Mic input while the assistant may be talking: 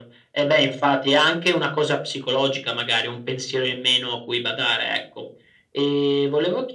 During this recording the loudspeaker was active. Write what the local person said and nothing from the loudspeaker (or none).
none